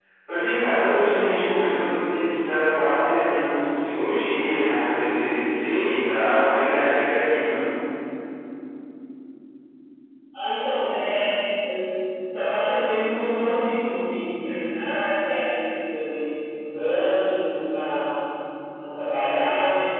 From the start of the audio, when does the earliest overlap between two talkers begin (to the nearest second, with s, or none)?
none